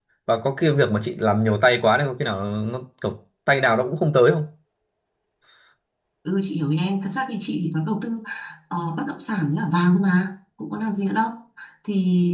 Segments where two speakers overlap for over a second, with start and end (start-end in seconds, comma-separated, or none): none